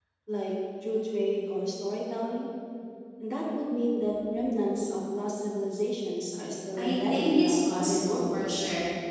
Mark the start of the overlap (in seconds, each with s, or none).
6.8 s